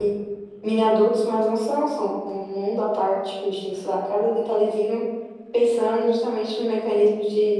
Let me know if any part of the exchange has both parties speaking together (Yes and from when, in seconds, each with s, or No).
No